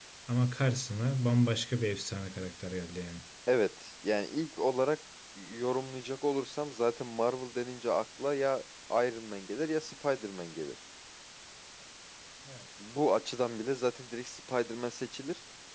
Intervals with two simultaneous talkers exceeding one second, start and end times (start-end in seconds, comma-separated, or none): none